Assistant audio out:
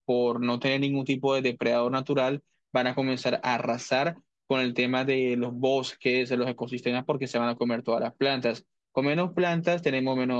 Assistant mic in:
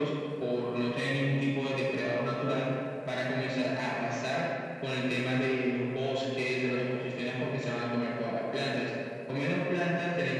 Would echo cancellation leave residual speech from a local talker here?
No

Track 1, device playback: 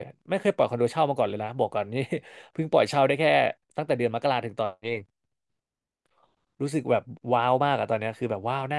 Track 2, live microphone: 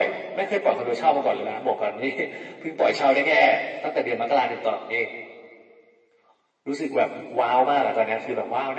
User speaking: No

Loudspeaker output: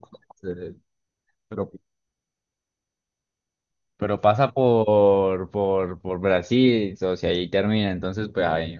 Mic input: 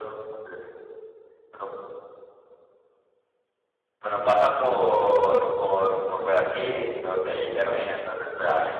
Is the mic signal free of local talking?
Yes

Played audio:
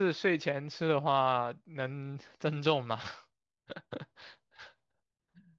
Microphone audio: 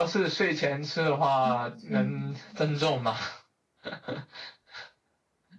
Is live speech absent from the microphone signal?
No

